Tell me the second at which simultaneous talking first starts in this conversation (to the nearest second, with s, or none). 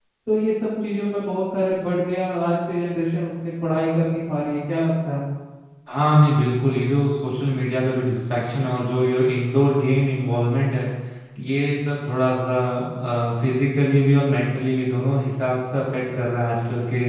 none